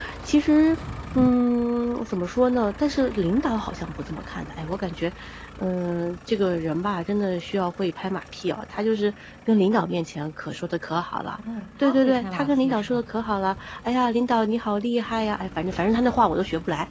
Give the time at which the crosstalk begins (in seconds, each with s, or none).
11.8 s